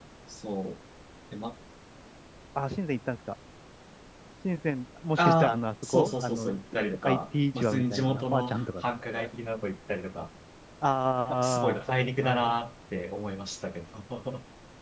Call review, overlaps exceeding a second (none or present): present